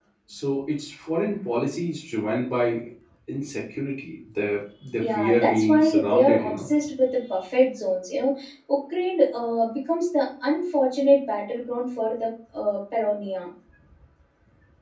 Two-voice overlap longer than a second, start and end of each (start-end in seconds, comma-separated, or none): 5.0-6.7